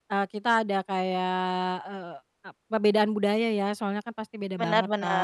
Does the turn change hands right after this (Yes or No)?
No